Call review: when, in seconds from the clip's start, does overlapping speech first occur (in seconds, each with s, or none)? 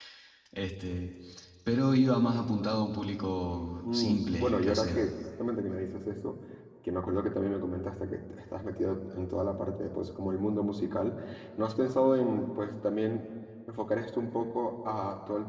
3.8 s